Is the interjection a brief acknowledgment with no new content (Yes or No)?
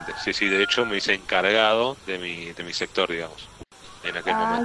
No